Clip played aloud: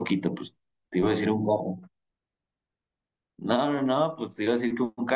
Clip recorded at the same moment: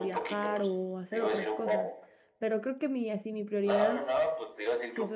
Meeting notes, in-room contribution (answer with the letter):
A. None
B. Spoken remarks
B